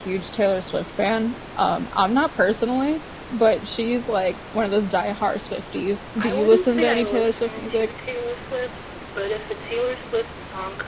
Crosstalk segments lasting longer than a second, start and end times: 6.2-7.9

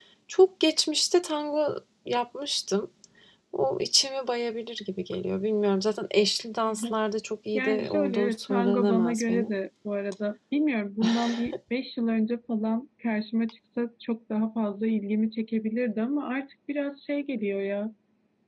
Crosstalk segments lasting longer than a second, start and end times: 7.5-9.5

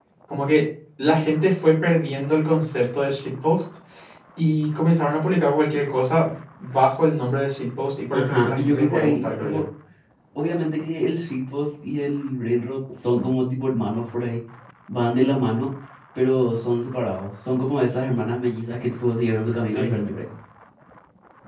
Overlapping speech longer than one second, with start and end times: 8.1-9.6

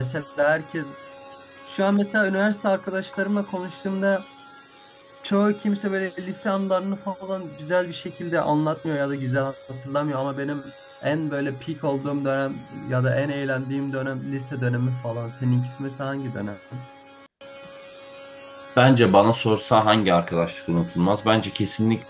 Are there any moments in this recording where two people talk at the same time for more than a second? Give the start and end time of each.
none

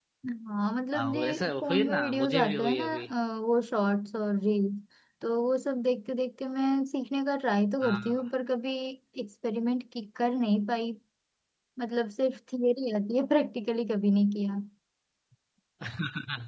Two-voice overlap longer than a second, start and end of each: 0.9-3.0

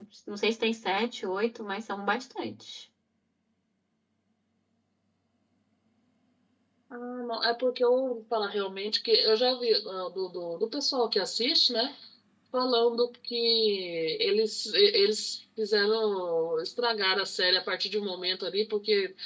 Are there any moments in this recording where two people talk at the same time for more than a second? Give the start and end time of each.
none

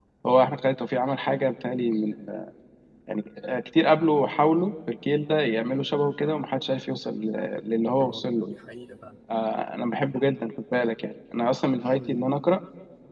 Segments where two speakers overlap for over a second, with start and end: none

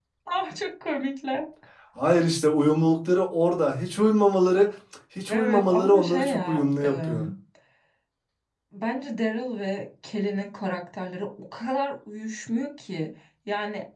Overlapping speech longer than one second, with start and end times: 5.3-6.6

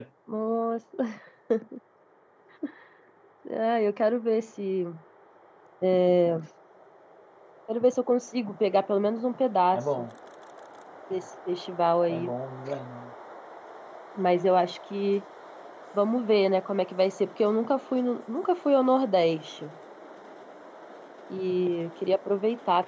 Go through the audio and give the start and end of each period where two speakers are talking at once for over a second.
none

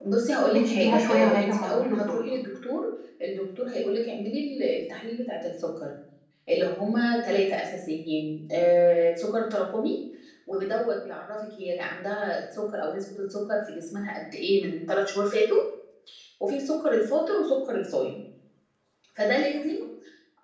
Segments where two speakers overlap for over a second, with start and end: 0.5-2.2

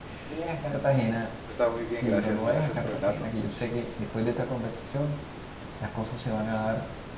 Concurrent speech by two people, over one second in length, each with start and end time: 2.0-3.3

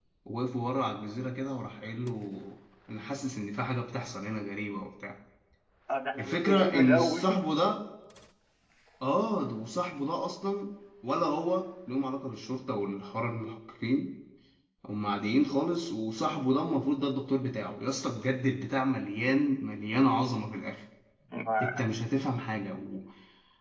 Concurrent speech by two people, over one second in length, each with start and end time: 6.2-7.4

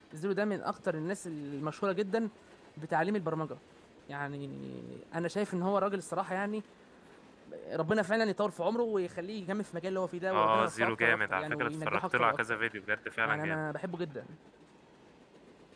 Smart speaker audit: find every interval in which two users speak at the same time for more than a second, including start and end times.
10.3-12.4

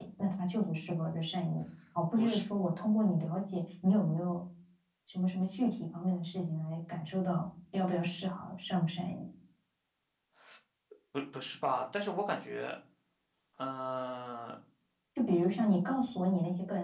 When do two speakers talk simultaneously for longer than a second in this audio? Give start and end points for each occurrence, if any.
none

